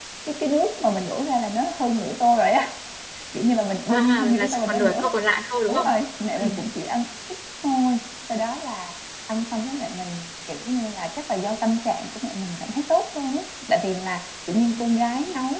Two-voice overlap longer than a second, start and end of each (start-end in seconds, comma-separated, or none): 3.9-5.1